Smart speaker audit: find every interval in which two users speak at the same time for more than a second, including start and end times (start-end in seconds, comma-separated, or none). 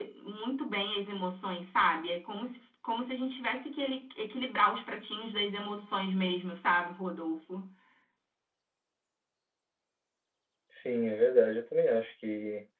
none